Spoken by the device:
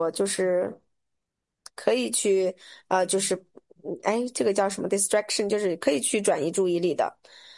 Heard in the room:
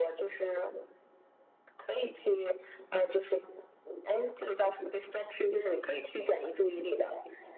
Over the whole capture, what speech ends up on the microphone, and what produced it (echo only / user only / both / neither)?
echo only